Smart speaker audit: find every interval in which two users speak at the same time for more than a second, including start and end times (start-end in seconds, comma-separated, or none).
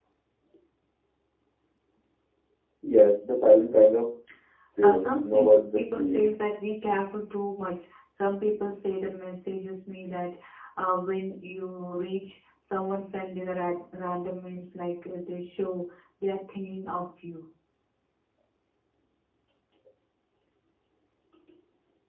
4.8-6.3